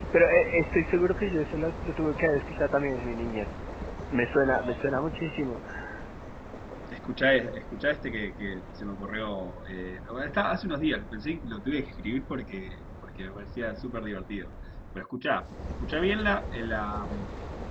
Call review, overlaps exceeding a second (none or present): none